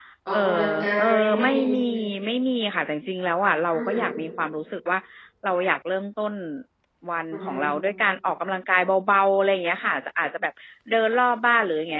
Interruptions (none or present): present